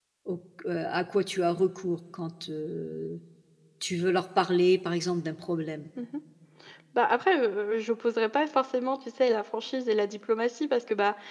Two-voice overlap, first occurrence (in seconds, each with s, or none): none